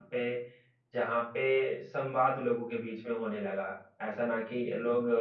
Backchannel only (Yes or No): Yes